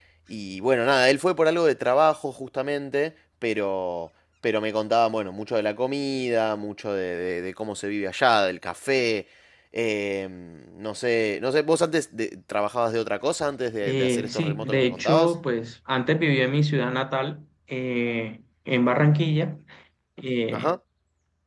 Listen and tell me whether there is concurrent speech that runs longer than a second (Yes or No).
Yes